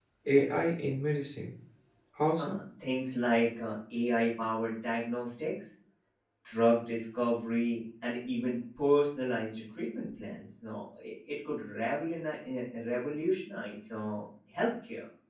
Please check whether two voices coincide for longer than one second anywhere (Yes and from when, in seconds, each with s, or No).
No